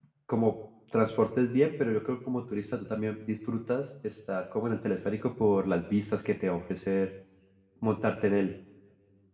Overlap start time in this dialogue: none

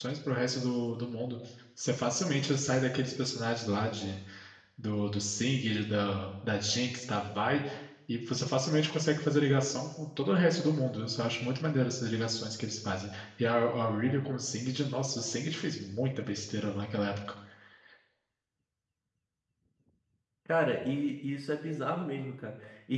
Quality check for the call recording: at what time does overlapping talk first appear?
none

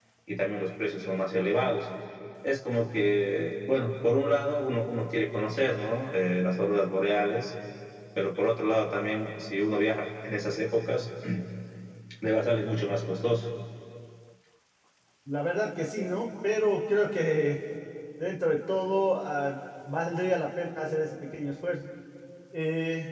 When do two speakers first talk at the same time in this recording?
none

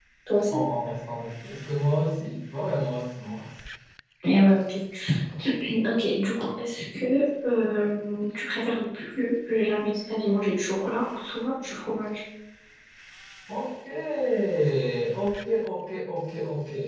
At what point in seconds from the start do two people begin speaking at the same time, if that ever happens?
none

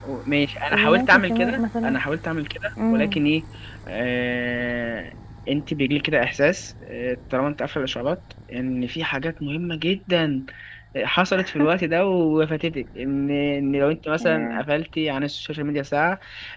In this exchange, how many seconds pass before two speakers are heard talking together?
0.7 s

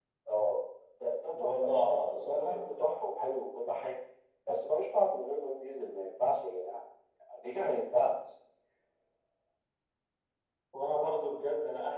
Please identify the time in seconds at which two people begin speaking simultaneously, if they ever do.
1.3 s

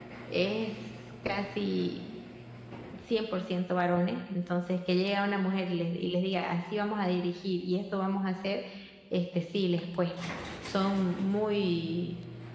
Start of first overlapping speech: none

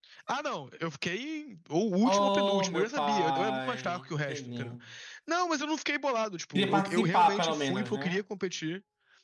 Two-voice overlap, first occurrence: 2.0 s

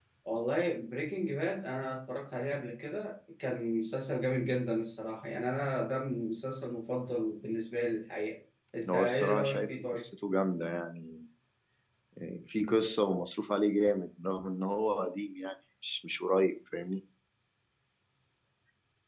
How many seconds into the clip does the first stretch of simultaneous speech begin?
8.8 s

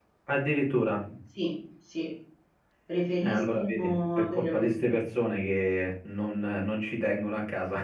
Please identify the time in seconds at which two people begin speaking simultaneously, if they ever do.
3.2 s

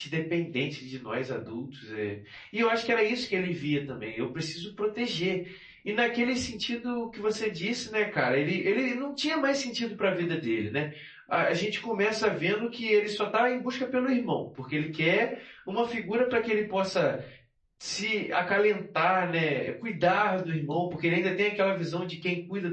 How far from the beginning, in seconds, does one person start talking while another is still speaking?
none

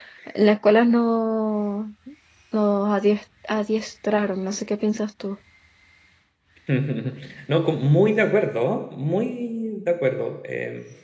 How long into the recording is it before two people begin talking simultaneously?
none

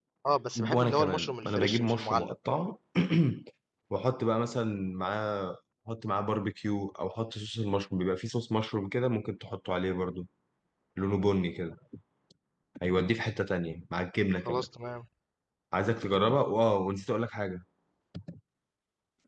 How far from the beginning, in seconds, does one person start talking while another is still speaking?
0.6 s

